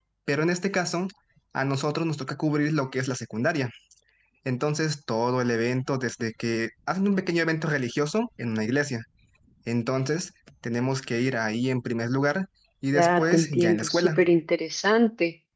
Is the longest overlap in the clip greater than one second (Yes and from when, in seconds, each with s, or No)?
Yes, from 12.9 s